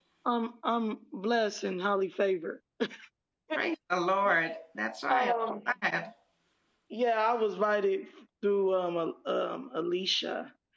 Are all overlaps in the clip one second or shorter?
Yes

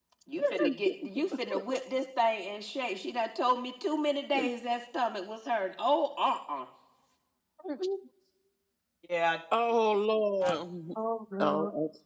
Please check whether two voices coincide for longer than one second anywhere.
No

